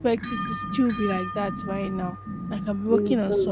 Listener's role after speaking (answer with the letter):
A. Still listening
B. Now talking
A